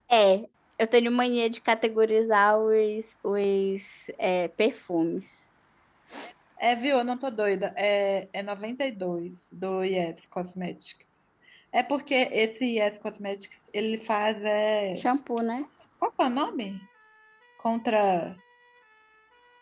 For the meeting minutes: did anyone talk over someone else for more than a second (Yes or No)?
No